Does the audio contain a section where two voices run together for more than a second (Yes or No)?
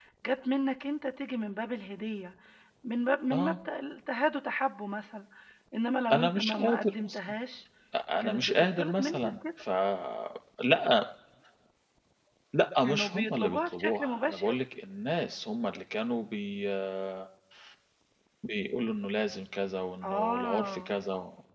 Yes